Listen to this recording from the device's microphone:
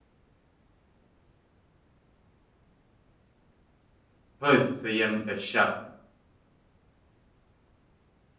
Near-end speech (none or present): present